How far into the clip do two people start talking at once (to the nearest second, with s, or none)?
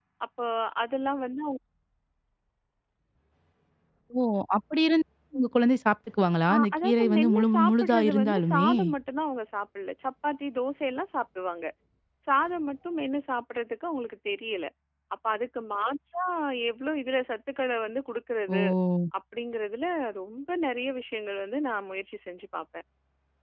6 s